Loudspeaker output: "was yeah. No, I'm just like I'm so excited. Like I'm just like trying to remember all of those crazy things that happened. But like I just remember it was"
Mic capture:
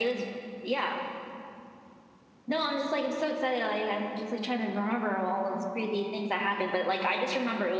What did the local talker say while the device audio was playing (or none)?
none